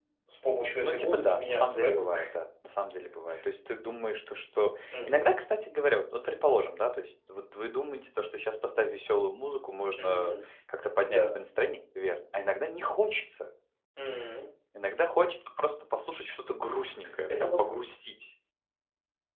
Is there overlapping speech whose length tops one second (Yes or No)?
Yes